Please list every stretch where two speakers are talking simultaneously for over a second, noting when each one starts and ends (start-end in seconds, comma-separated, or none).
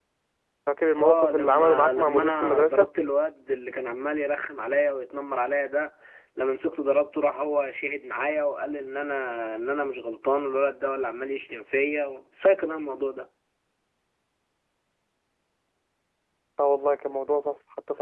1.0-2.9